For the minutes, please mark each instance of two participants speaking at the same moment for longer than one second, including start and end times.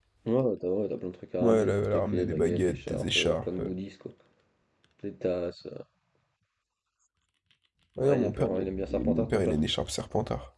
1.4-3.7, 8.0-9.6

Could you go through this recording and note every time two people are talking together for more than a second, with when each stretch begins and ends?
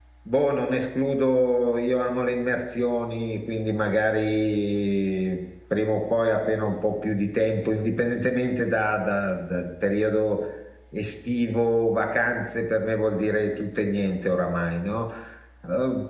none

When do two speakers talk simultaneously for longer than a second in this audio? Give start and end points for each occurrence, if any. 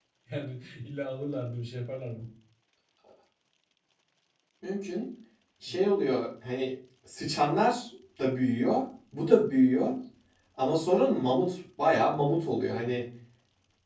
none

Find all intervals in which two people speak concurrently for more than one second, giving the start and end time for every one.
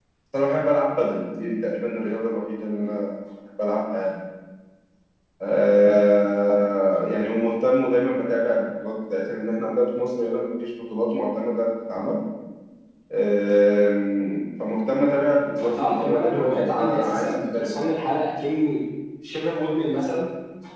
15.6-17.9

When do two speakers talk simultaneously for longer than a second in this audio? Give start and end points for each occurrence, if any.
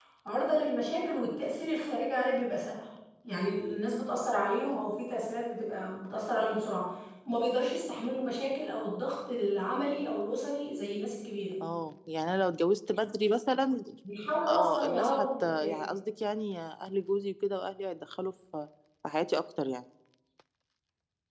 14.5-15.9

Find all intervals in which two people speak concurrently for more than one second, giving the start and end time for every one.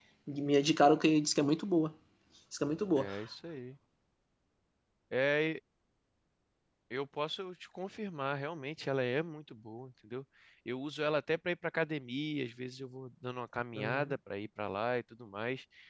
none

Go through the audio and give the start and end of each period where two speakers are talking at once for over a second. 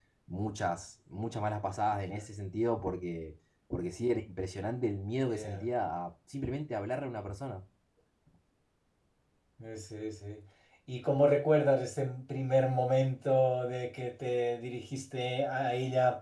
none

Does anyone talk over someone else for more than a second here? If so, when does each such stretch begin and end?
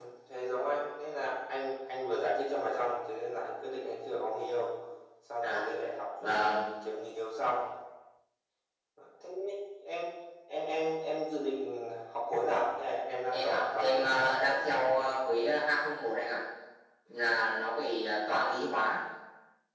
13.3-15.1

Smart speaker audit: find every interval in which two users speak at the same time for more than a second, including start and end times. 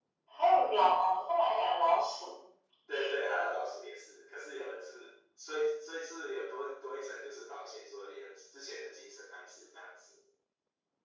none

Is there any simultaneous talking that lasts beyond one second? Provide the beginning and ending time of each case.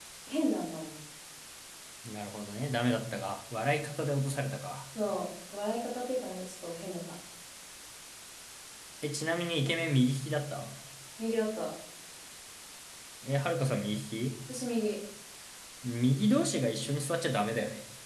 none

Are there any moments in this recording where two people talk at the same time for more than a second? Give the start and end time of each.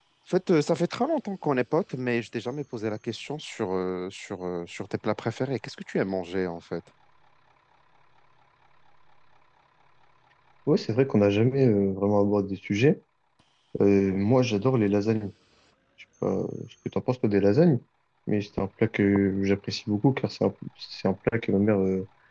none

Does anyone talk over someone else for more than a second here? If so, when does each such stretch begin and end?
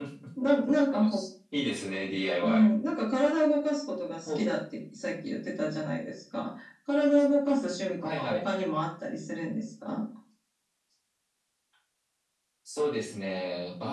none

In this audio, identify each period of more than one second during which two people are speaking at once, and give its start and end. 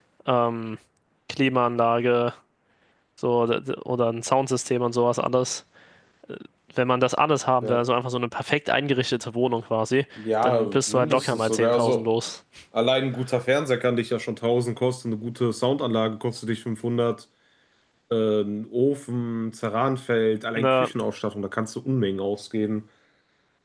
10.4-12.1

